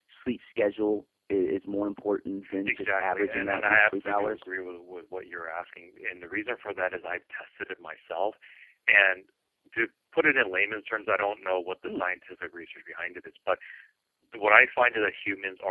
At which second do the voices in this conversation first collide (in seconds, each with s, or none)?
2.4 s